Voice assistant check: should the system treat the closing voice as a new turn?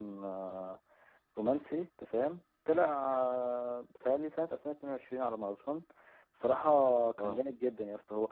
No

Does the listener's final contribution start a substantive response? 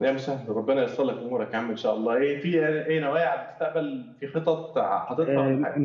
Yes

